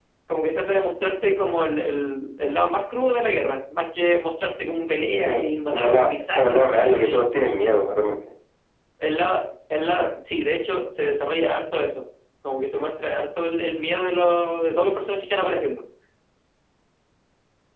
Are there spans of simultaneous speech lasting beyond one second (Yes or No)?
Yes